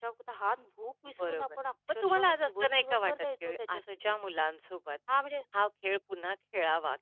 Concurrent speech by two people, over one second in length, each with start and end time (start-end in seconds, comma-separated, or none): 2.0-4.2